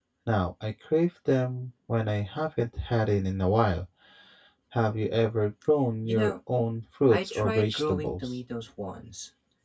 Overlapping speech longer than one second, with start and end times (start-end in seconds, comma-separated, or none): 7.1-8.4